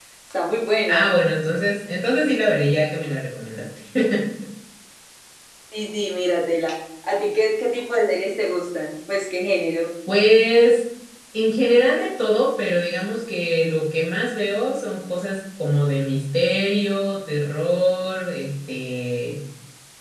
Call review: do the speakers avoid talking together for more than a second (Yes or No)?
Yes